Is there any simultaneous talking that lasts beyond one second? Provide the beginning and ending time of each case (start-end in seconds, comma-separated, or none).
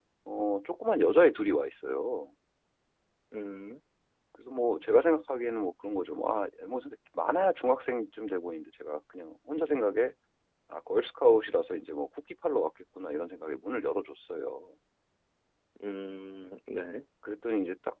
none